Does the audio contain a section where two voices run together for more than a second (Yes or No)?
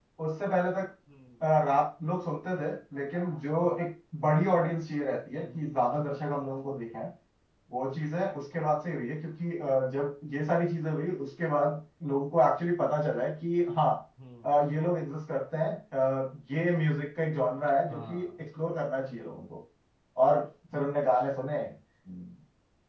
No